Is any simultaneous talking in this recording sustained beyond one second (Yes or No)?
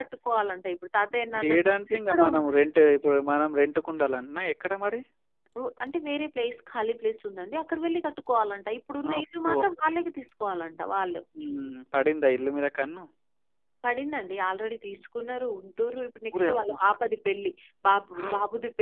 Yes